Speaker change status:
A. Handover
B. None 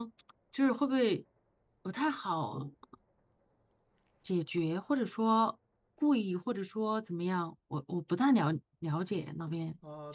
A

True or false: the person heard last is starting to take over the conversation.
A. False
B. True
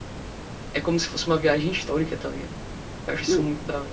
B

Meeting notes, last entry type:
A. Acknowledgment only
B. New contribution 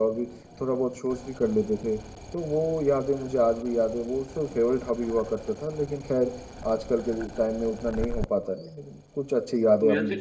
B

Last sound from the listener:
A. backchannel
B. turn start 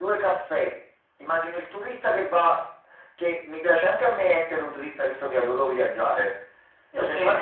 A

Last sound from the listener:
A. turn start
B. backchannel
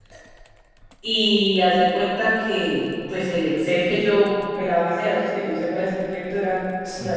B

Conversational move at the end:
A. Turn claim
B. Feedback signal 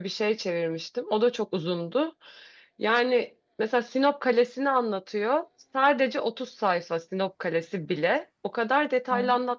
B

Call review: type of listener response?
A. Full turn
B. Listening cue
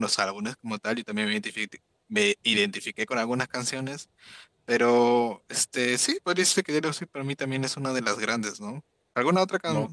B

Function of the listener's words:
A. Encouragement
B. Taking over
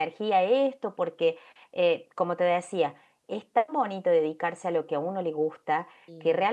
A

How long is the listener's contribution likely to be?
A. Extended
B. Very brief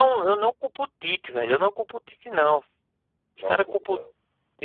B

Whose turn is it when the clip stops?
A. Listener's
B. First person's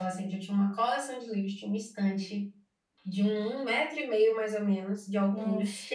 B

